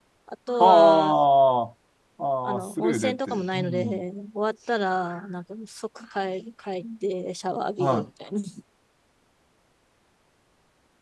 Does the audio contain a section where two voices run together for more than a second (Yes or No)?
Yes